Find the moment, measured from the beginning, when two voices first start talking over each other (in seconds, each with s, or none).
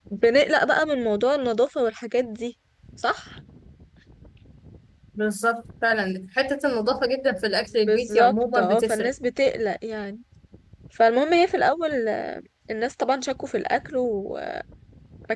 7.9 s